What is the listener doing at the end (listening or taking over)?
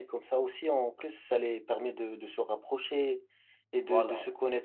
listening